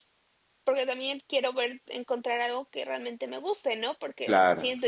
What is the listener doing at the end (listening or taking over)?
listening